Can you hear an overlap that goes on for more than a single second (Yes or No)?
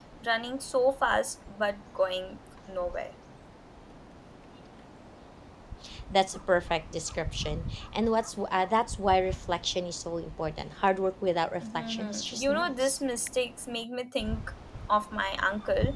Yes